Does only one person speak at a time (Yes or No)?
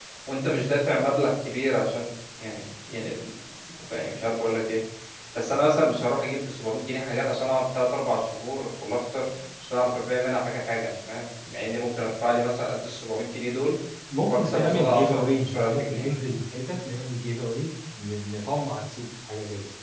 No